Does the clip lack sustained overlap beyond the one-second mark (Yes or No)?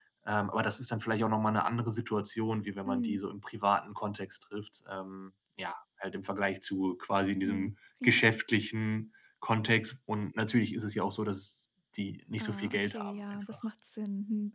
No